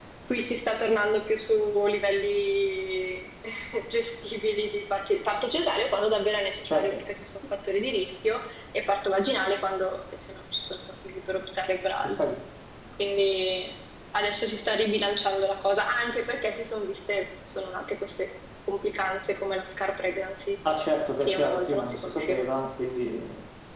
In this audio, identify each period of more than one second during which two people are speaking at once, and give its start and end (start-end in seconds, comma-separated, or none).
21.2-22.4